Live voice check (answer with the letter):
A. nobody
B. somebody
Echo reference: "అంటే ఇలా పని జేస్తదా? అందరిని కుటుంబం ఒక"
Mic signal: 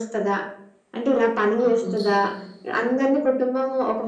B